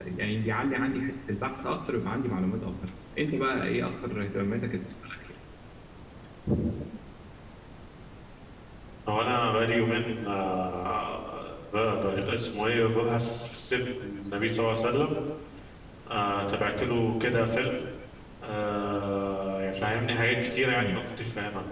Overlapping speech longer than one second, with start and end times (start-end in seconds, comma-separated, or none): none